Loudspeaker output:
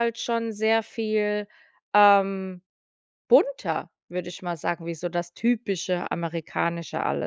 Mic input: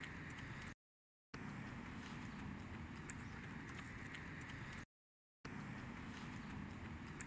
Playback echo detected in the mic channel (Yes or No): No